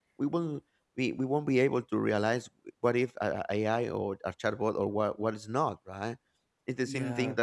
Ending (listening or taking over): listening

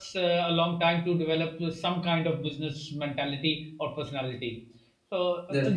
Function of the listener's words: listening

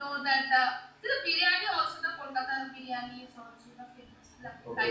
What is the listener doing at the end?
taking over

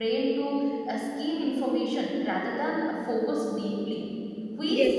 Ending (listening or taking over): listening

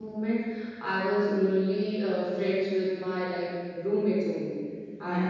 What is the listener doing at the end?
listening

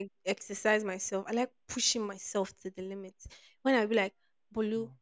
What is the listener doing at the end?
listening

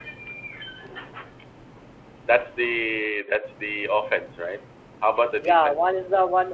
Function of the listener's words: taking over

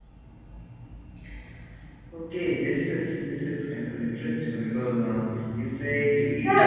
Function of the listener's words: taking over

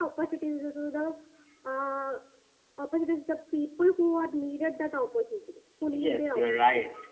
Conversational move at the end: taking over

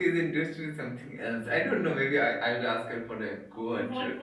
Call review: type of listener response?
taking over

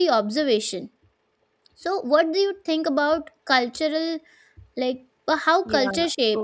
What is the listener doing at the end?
taking over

